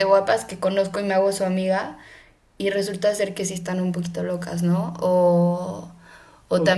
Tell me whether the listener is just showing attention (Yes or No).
No